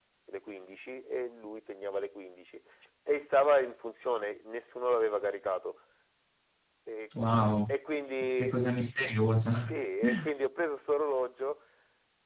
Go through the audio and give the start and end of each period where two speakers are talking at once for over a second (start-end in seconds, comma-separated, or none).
none